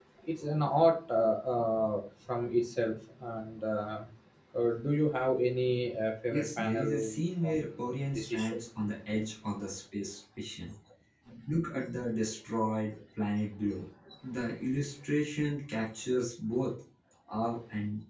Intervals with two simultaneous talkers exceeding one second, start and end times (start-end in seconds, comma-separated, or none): 6.3-7.6